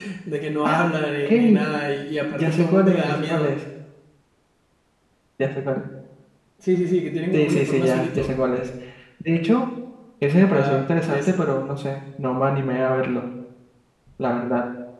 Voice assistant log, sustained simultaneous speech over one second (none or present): present